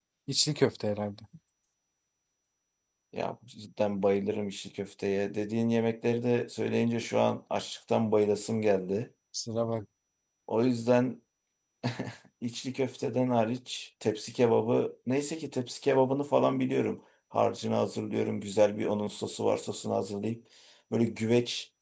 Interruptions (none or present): none